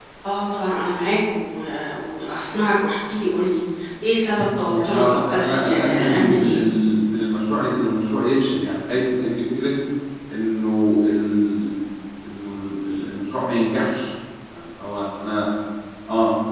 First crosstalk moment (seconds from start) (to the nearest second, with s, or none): 5 s